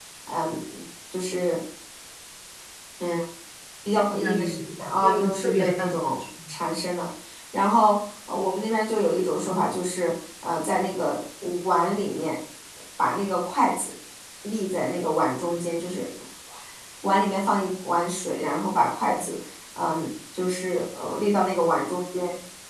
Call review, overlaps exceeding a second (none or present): present